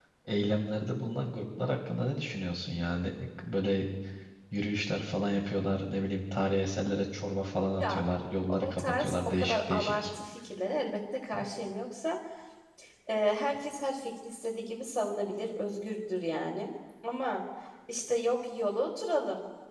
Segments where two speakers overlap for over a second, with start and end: 8.6-10.0

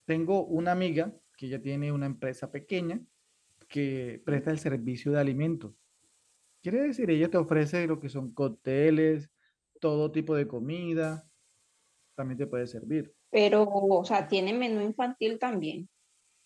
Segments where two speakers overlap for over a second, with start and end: none

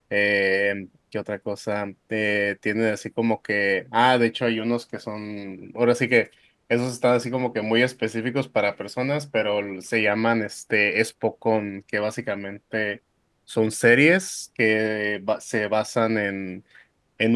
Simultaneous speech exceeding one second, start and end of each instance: none

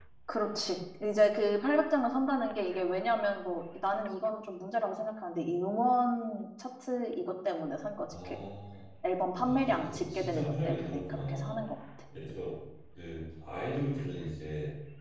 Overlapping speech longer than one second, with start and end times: 9.4-11.6

